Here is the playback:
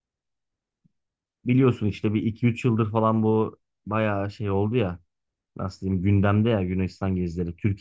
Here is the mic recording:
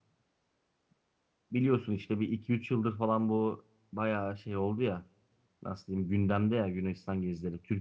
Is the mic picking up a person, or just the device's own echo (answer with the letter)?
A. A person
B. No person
B